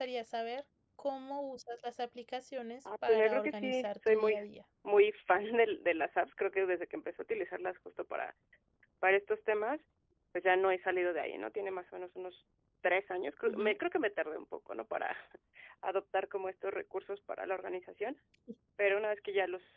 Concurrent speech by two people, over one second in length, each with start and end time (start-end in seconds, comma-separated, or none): 3.1-4.4